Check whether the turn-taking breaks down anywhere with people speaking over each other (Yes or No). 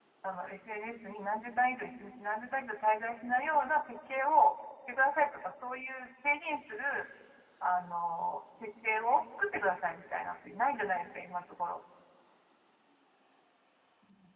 No